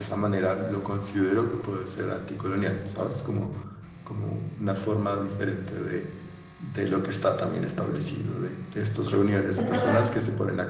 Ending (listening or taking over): listening